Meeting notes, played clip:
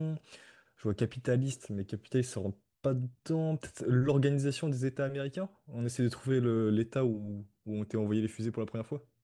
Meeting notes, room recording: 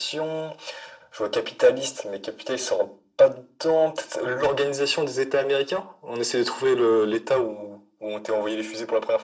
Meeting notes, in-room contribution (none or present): none